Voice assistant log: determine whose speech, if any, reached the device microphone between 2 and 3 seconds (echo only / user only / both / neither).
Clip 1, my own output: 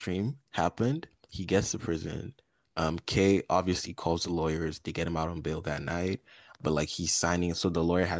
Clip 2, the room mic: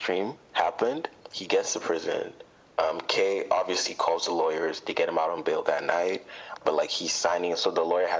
echo only